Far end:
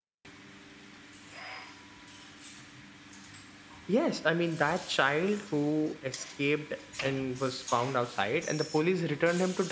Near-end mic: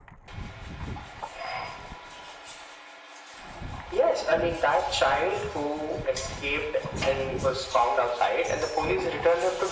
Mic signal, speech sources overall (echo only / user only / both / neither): echo only